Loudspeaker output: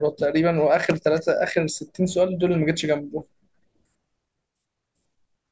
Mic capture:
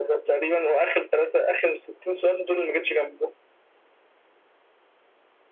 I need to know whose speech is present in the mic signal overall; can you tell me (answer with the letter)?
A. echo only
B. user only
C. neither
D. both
A